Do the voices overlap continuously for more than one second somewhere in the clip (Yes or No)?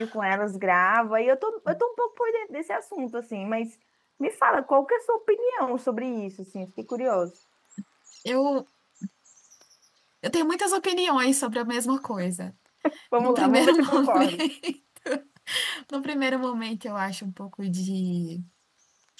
Yes